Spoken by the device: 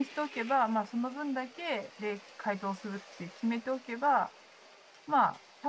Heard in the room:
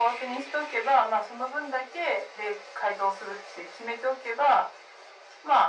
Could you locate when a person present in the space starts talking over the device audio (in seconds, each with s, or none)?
none